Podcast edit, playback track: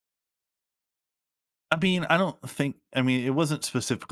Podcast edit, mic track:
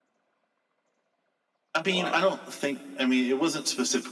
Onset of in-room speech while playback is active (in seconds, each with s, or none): 1.8 s